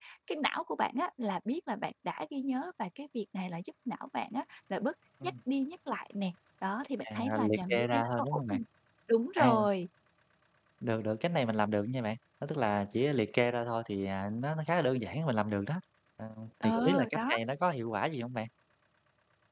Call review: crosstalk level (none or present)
present